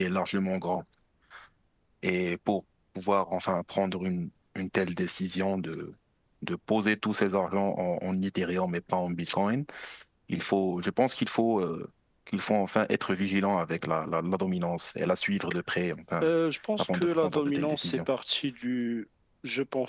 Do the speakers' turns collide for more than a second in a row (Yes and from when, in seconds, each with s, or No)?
Yes, from 16.8 s